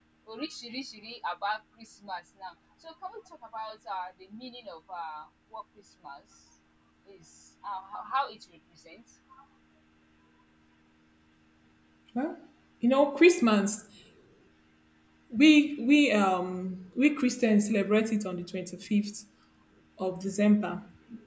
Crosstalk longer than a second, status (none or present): none